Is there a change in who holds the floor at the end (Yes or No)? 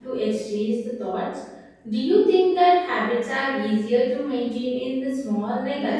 Yes